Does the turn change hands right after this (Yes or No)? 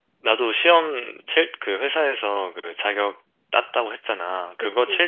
No